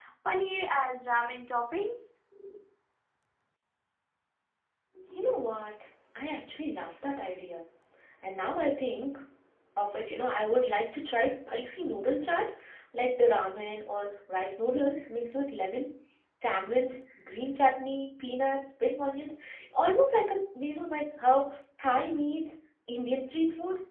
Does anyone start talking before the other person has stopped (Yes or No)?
No